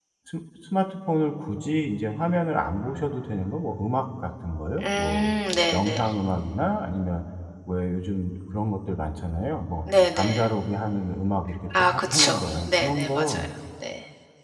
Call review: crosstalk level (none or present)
present